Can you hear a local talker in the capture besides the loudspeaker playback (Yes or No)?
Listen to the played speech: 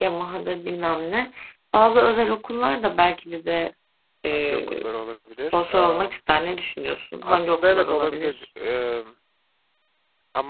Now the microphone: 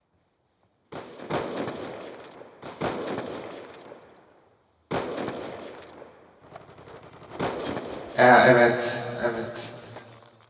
Yes